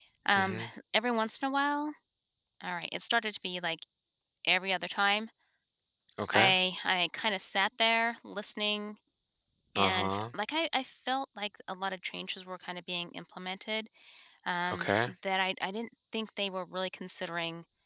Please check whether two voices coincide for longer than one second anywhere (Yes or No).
No